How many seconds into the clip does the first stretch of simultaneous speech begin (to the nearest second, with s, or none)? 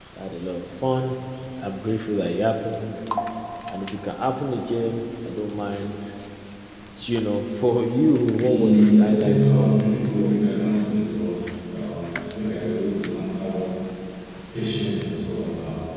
8 s